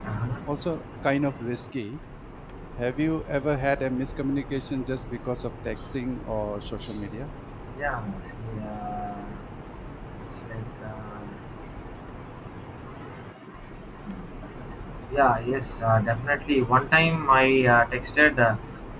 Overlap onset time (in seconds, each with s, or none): none